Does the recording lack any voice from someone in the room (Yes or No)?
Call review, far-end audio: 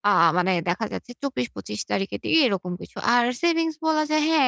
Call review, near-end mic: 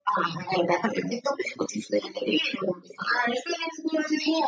Yes